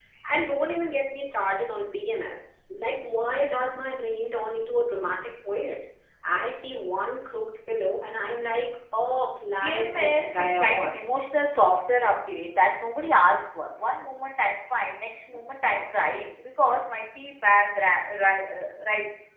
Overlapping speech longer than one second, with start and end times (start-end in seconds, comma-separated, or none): 9.6-11.0